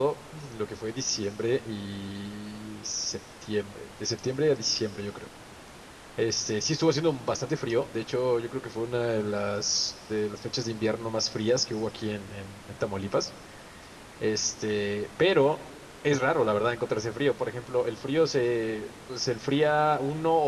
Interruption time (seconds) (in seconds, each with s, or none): none